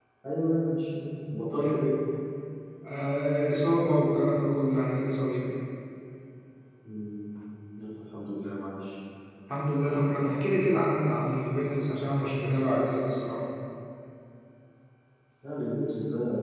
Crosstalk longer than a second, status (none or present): none